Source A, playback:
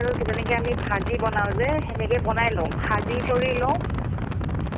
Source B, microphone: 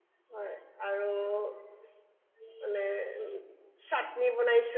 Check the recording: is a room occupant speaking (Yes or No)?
Yes